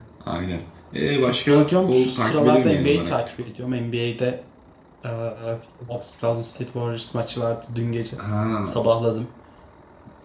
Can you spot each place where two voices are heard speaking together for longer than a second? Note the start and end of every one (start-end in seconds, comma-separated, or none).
1.2-3.5